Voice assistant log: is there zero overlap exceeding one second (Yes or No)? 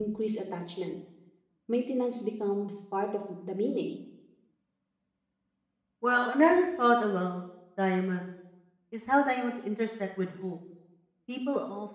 Yes